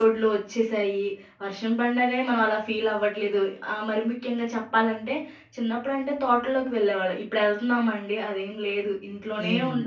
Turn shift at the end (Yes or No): No